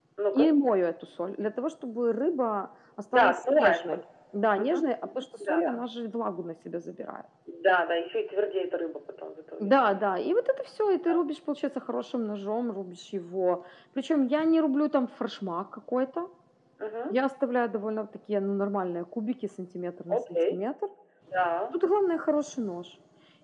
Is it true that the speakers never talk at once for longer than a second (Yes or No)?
No